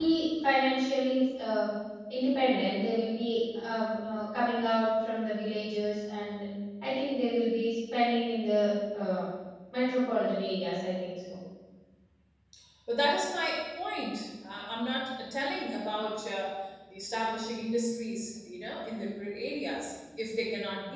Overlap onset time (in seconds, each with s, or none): none